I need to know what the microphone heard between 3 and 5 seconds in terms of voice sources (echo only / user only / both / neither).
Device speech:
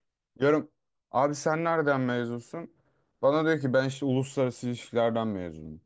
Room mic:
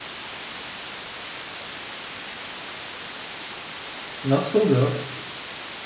user only